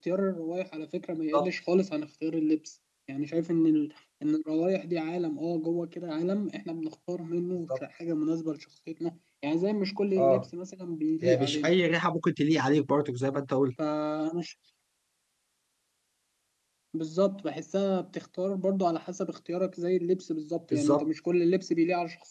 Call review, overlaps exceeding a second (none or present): none